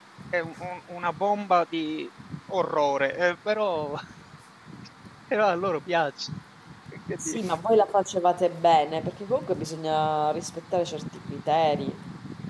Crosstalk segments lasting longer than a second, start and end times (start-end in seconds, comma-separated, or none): none